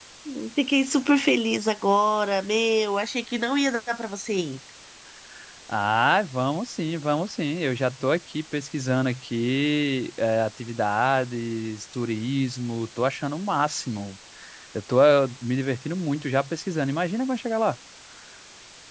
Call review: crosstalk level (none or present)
none